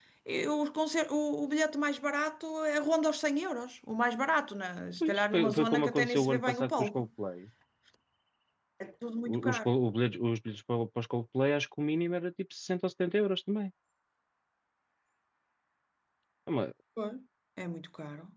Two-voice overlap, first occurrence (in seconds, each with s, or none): 5.0 s